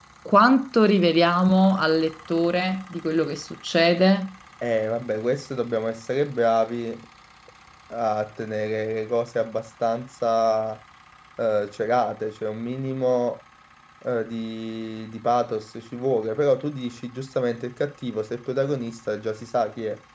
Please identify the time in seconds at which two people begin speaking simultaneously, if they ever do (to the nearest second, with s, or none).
none